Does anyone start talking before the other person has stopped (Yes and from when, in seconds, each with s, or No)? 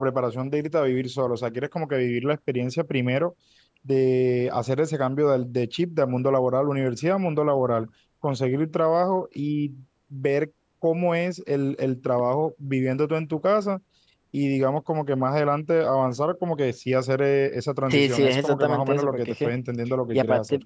Yes, from 17.9 s